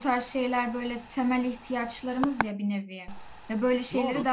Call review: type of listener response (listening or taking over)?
listening